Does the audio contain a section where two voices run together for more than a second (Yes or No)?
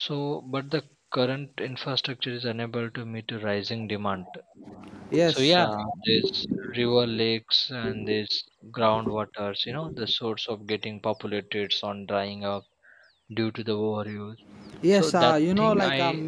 Yes